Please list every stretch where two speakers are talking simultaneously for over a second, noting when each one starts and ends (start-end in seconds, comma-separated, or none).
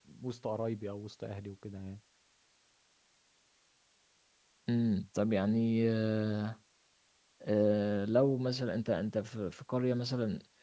none